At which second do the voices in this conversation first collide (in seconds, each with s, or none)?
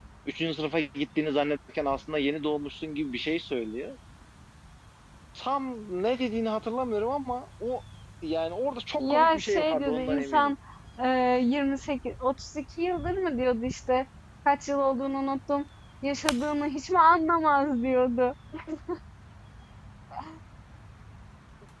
9.0 s